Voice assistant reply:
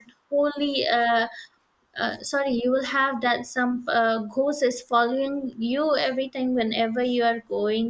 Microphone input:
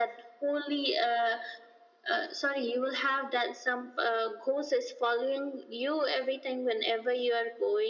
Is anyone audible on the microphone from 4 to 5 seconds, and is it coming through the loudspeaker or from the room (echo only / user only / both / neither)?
echo only